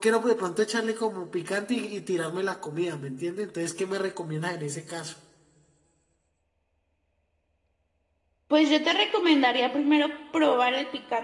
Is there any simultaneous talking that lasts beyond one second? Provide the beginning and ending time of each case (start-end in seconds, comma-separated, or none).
none